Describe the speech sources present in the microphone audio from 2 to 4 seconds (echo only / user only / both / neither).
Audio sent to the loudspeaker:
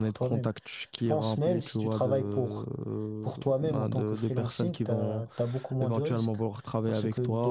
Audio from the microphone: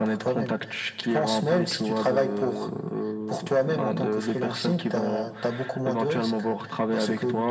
echo only